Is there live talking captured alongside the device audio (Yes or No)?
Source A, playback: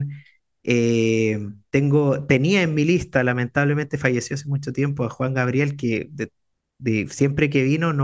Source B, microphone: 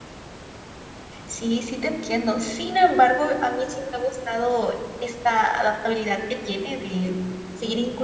Yes